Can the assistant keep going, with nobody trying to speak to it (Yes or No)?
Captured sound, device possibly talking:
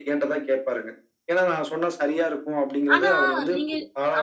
No